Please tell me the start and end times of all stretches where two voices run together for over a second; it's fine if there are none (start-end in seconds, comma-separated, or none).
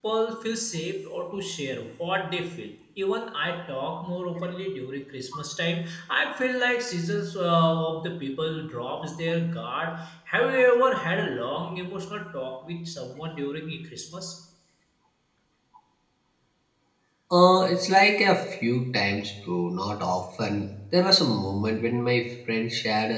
none